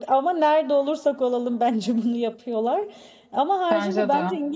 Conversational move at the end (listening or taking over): listening